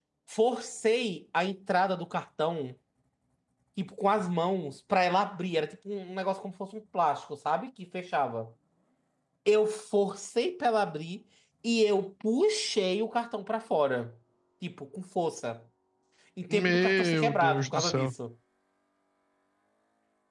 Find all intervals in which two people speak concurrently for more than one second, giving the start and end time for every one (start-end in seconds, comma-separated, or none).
16.5-18.1